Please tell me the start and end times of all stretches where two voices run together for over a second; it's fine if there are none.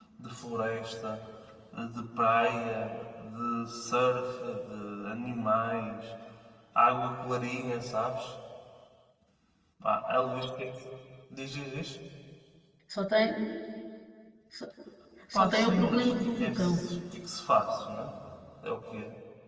15.3-16.8

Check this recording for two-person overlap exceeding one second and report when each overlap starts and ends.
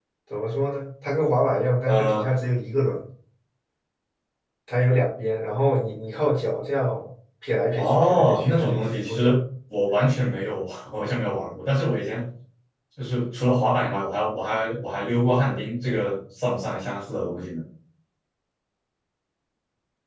7.8-9.4

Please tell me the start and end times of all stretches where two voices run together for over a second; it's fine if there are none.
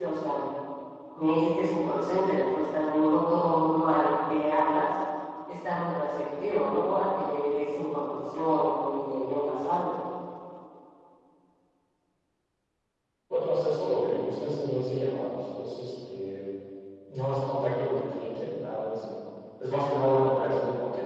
none

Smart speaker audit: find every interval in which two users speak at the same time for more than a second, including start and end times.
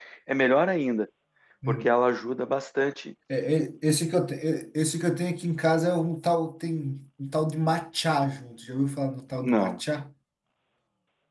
none

